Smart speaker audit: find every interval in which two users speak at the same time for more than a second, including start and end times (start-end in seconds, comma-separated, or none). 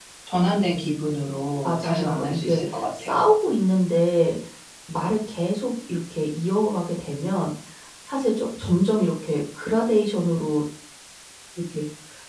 1.6-3.2